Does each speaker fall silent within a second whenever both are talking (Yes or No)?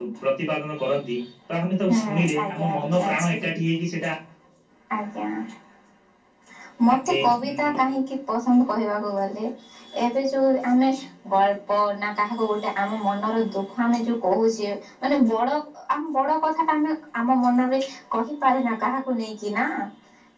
No